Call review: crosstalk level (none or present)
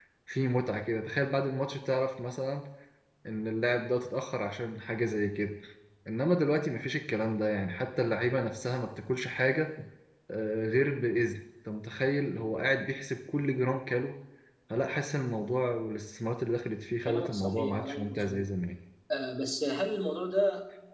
present